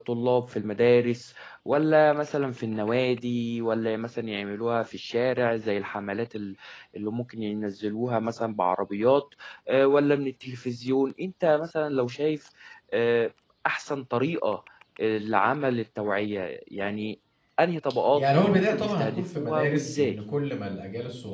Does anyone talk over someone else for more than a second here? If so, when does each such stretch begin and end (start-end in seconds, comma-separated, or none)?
18.1-20.2